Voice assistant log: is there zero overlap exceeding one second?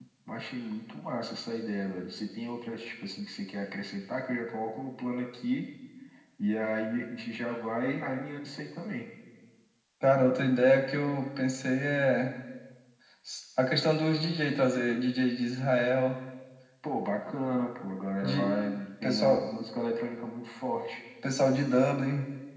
Yes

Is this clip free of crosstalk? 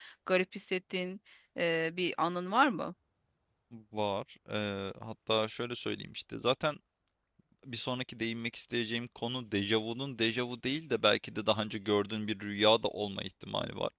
Yes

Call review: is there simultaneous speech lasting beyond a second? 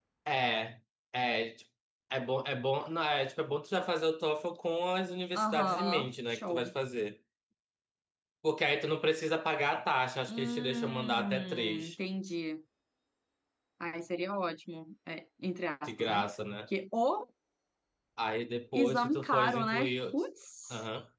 Yes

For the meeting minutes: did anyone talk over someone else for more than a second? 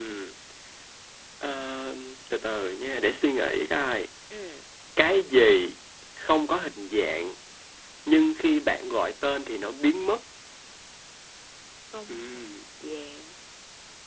No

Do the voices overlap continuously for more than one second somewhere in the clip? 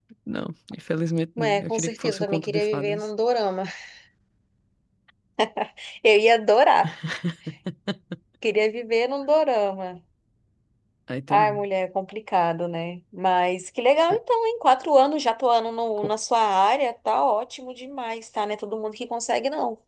Yes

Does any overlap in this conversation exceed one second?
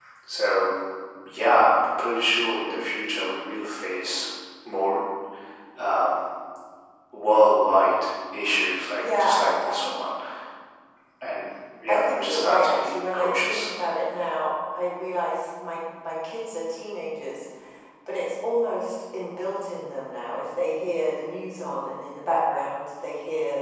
Yes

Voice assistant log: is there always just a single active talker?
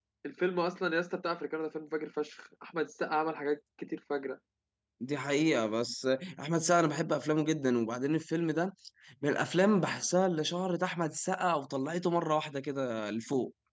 Yes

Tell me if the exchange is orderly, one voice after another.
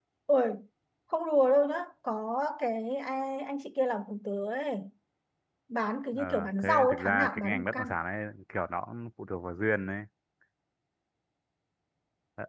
No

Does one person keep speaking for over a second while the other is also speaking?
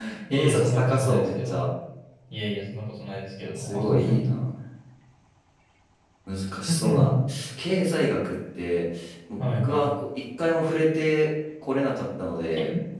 Yes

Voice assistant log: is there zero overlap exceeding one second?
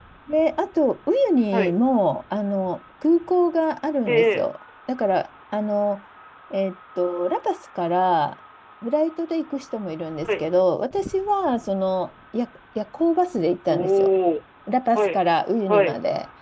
Yes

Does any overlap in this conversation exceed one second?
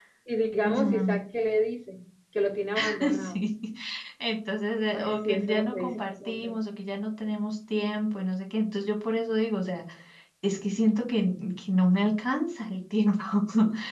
Yes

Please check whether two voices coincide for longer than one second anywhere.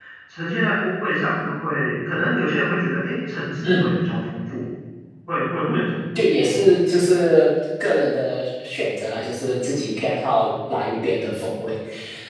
No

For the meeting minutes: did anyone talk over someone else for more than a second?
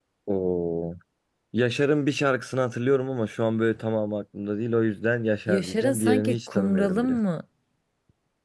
Yes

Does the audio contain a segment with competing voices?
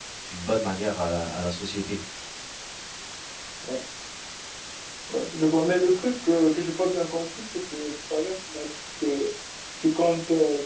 No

